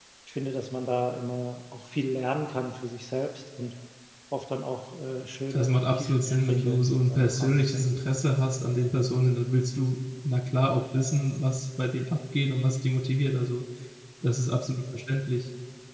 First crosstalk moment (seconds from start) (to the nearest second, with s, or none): 6 s